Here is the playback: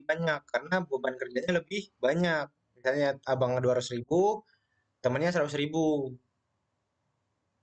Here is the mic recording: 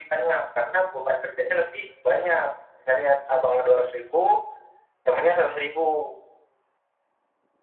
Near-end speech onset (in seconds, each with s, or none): none